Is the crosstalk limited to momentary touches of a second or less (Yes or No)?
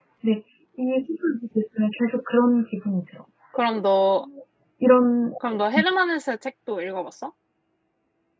Yes